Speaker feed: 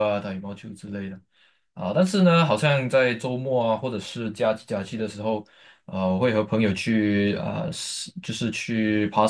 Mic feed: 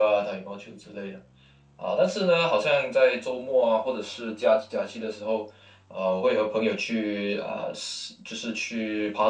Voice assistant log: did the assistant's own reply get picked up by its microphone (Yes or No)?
Yes